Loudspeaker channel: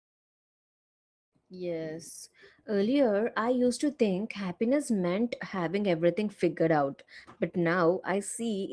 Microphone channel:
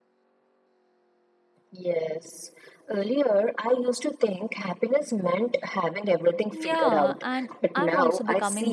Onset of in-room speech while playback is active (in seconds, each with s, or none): 6.5 s